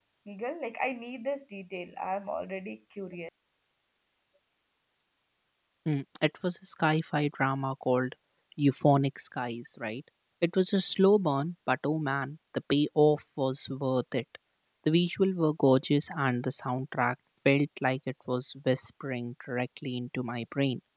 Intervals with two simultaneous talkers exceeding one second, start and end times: none

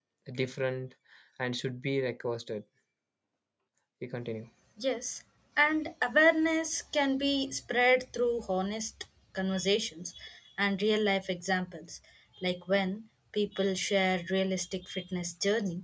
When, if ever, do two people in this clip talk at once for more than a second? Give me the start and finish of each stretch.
none

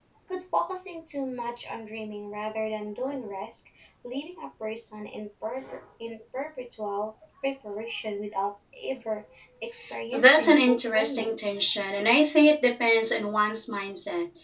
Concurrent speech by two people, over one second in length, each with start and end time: 10.1-11.5

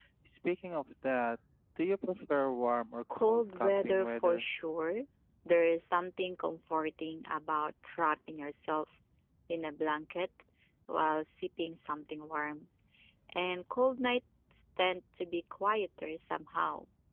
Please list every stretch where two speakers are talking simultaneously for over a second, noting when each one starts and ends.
3.1-4.5

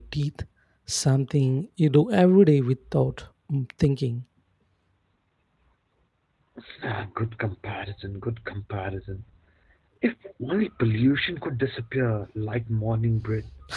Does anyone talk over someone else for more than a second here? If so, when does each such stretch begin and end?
none

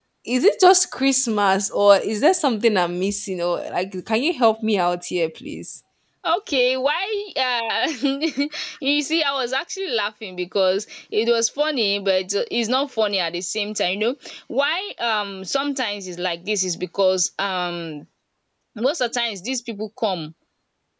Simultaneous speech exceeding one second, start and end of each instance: none

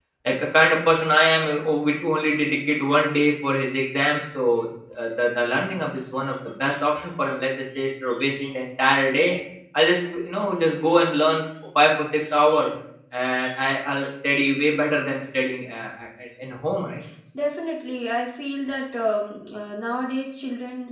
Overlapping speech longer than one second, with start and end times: none

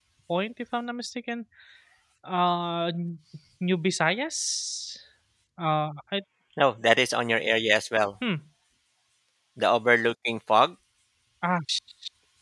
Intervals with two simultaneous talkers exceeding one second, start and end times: none

